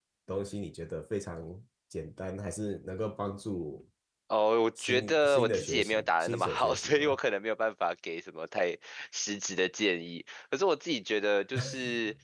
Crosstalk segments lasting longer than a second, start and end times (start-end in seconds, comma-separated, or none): 4.8-7.2